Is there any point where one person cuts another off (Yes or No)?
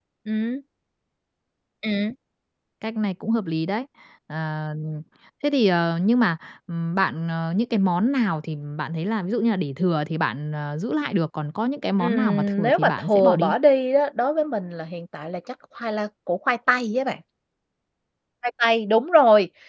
Yes